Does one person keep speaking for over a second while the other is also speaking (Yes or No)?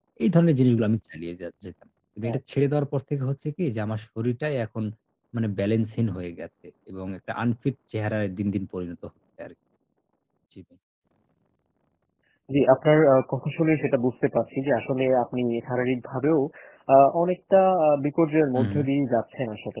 No